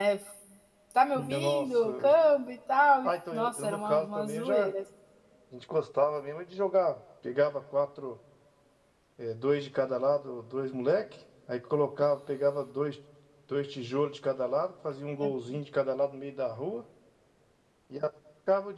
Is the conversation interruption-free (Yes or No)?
No